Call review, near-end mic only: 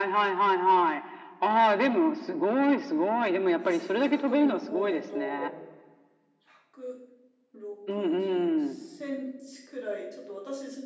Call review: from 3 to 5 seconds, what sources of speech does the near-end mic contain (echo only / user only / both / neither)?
both